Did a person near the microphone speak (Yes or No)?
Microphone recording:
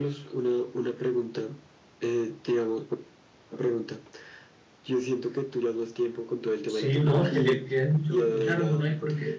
Yes